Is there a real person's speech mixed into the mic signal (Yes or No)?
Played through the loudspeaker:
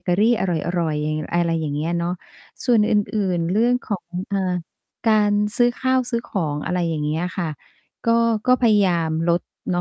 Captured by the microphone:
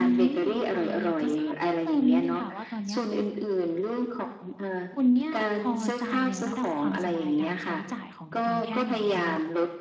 Yes